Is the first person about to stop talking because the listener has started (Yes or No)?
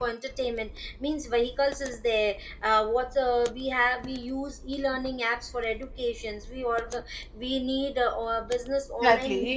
Yes